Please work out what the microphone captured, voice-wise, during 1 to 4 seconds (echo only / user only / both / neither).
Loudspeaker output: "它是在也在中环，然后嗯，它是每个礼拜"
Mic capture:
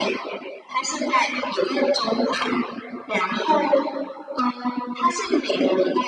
echo only